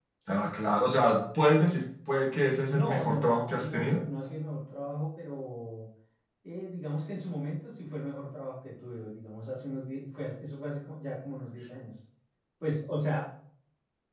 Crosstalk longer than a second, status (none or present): present